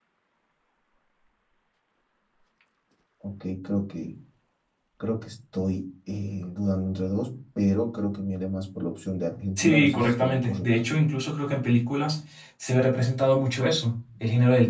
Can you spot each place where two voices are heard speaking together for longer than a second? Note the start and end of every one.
9.6-10.9

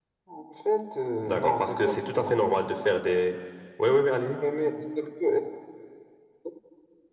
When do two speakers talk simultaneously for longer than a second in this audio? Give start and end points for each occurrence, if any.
1.2-2.5

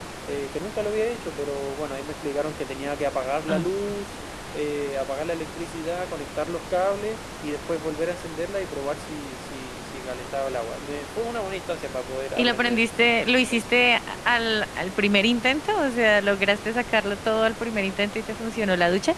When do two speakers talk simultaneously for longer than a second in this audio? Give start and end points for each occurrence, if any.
none

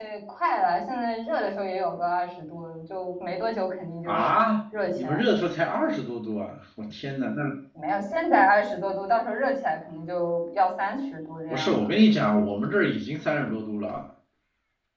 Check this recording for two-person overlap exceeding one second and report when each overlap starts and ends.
none

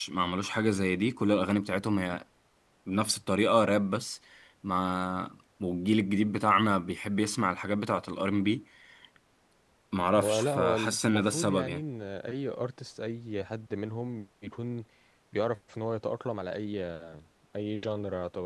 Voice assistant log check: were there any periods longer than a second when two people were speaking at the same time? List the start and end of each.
10.2-11.8

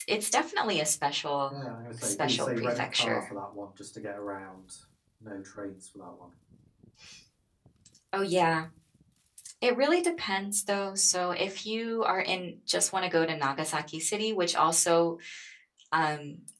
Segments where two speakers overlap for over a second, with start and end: 2.0-3.3

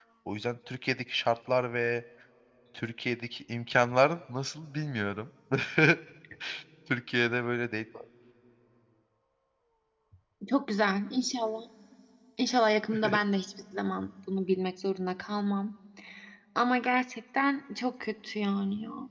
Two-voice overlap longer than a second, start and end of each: none

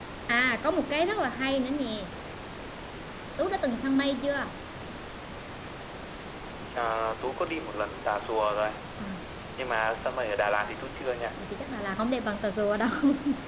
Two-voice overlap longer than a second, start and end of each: none

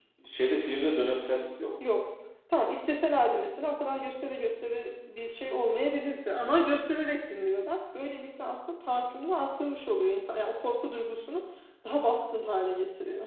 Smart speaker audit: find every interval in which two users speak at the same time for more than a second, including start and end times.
none

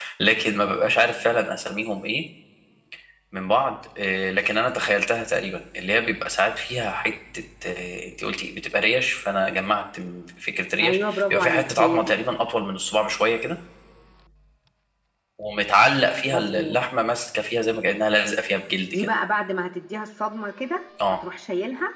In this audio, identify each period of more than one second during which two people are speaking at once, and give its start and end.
10.8-12.1

